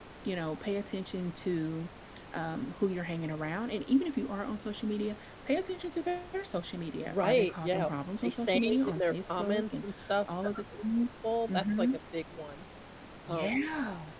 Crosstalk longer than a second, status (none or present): present